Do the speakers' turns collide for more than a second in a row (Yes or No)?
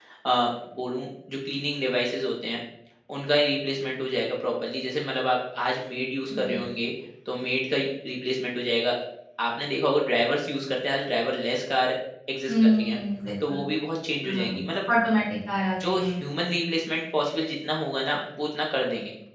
No